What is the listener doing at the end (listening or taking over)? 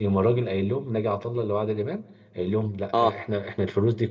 listening